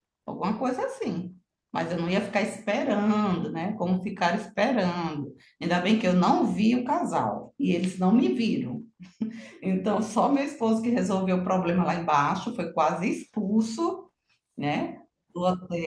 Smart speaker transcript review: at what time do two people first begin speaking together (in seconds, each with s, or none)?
none